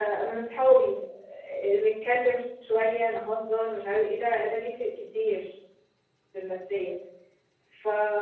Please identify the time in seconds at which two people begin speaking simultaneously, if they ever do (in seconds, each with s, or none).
none